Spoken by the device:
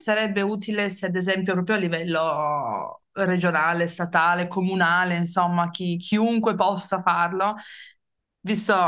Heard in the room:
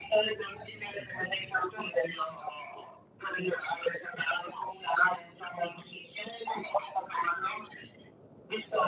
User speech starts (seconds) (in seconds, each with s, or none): none